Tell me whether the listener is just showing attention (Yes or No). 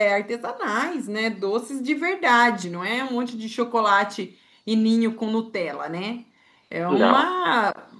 Yes